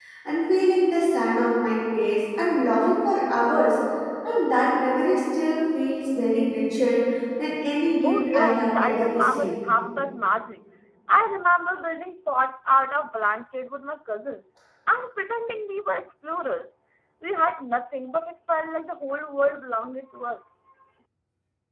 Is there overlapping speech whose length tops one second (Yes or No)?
Yes